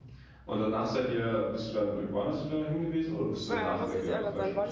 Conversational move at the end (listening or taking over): taking over